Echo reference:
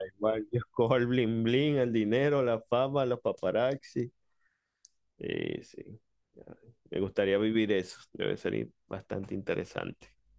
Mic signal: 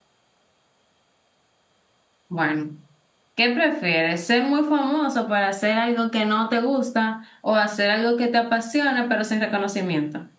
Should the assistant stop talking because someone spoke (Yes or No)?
Yes